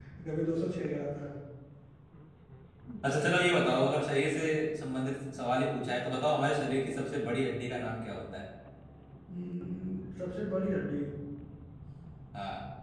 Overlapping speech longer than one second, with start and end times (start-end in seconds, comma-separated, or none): none